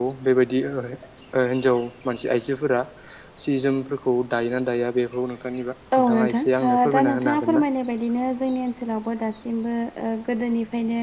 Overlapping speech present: Yes, from 5.9 s

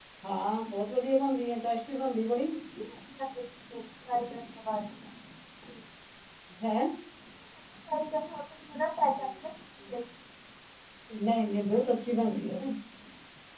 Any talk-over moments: No

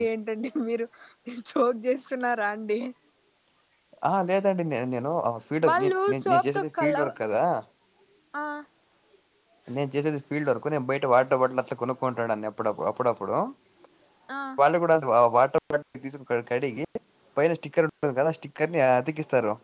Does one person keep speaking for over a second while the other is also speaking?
Yes, from 5.6 s

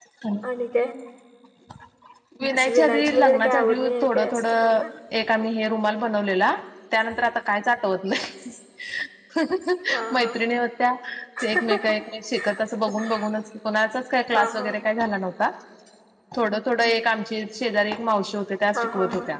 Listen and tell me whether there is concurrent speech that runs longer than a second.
Yes, from 2.5 s

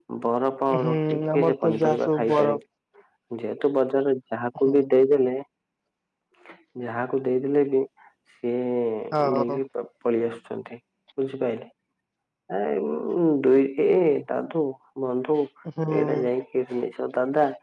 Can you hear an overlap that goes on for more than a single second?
Yes, from 0.8 s

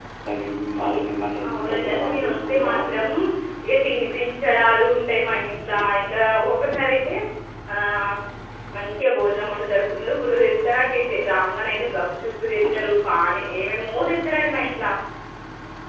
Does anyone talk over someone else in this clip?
Yes, from 1.4 s

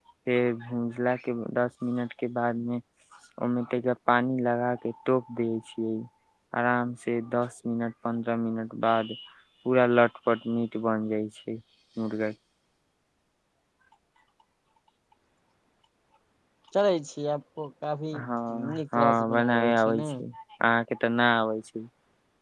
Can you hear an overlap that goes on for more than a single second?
Yes, from 18.6 s

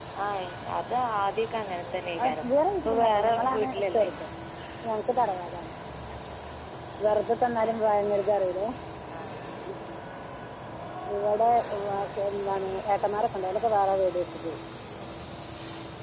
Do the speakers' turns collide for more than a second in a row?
Yes, from 2.2 s

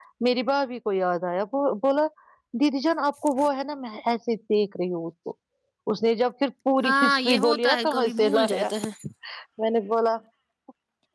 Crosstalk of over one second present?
Yes, from 6.8 s

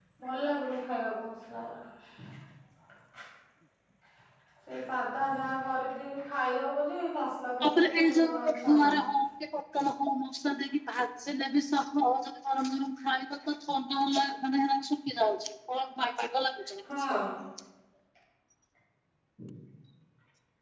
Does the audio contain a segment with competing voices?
Yes, from 7.6 s

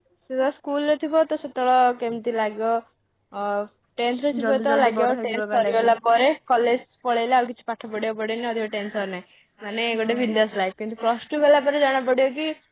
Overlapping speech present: Yes, from 4.4 s

